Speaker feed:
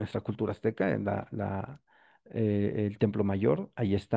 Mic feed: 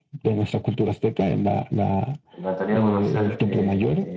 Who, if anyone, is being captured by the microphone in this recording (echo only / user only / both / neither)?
both